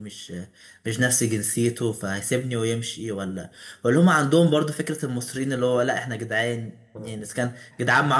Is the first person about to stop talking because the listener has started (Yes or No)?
No